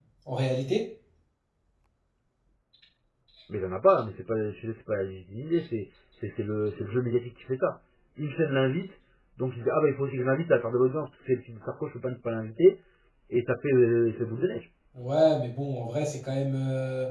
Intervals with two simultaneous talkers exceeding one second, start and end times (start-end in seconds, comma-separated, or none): none